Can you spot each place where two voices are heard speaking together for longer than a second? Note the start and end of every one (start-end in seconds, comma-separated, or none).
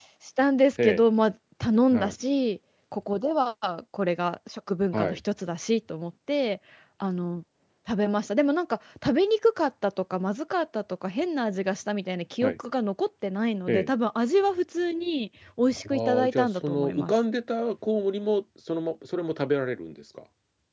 15.8-17.2